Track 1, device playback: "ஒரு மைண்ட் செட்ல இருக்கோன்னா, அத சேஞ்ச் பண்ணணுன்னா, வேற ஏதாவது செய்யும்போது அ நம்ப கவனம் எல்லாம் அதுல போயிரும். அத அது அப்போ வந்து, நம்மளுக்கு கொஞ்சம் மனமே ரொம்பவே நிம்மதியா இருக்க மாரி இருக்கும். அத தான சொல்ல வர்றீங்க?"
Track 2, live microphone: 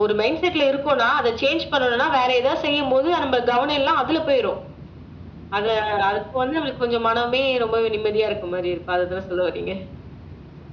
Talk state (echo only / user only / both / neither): echo only